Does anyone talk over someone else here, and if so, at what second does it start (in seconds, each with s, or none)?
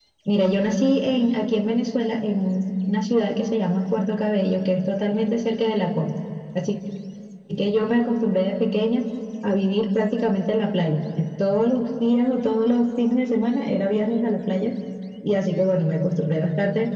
none